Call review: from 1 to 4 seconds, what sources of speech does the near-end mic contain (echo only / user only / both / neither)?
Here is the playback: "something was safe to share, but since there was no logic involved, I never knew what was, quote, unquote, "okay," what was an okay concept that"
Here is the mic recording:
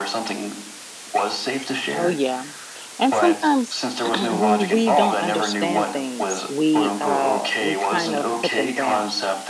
both